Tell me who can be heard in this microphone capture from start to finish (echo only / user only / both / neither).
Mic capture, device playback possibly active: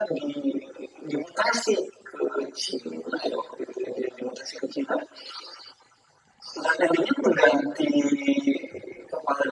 echo only